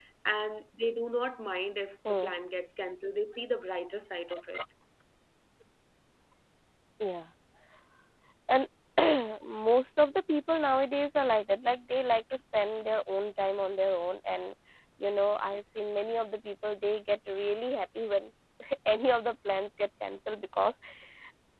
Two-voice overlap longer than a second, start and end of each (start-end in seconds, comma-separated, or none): none